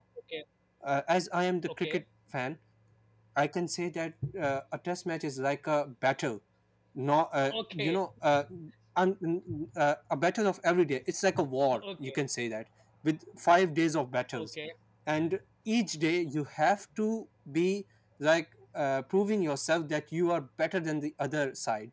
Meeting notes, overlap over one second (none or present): none